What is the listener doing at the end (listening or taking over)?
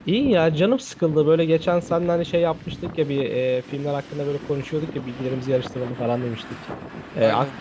listening